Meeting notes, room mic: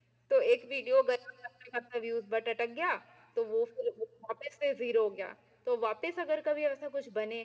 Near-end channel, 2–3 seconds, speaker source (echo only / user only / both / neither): echo only